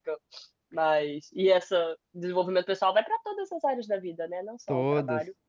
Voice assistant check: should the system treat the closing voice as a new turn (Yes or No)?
No